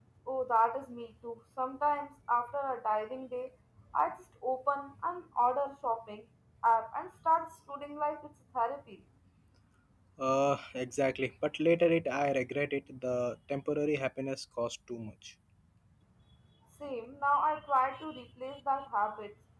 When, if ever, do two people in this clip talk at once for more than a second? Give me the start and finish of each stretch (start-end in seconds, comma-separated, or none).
none